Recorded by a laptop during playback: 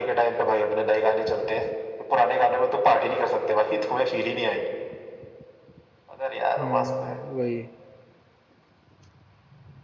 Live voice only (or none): हम्म वही